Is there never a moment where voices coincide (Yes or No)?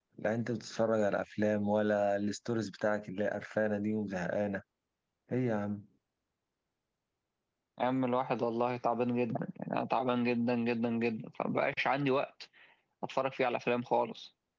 Yes